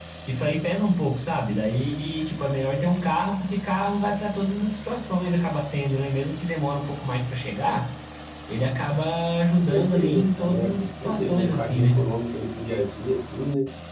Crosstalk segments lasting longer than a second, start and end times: 9.6-12.0

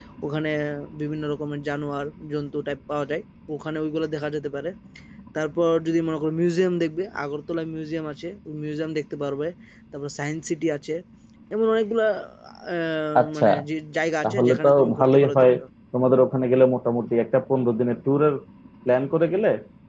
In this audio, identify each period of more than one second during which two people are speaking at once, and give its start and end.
14.2-15.5

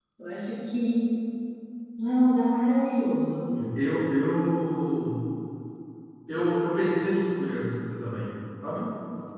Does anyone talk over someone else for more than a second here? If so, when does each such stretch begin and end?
none

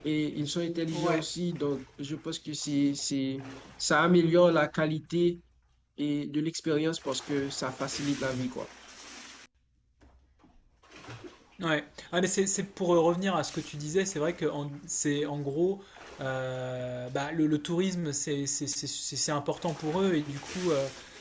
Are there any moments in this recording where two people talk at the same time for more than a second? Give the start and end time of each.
none

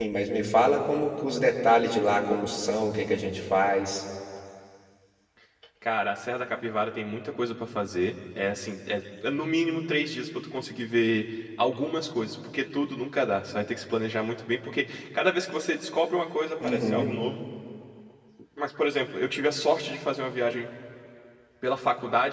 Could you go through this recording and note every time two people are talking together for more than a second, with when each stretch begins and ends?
none

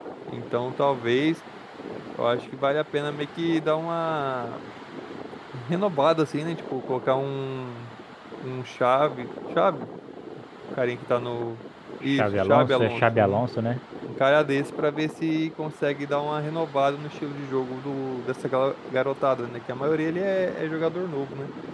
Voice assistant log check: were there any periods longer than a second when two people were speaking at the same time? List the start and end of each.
12.1-13.4

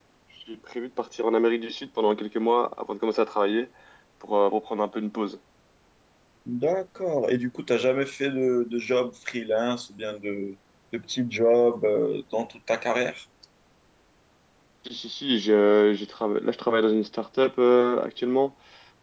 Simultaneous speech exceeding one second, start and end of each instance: none

